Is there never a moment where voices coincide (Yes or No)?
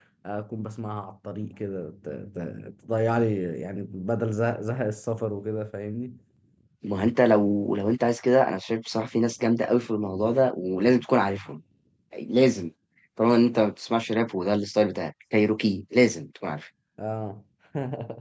Yes